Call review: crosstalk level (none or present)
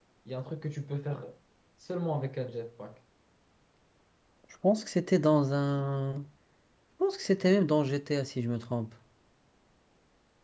none